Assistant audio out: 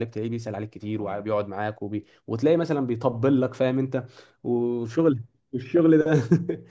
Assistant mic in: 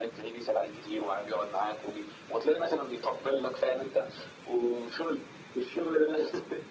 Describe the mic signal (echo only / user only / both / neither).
echo only